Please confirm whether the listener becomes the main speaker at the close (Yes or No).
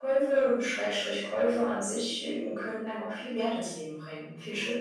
Yes